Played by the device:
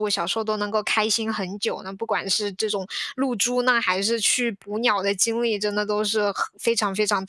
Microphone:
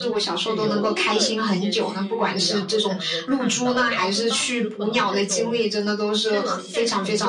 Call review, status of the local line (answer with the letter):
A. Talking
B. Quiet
A